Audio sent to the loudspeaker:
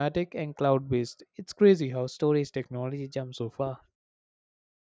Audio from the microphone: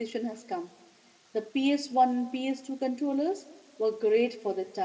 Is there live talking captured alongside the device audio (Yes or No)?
Yes